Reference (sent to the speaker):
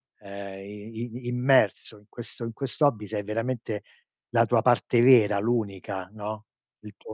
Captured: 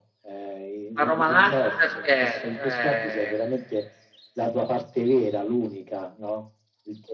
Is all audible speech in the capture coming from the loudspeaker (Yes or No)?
No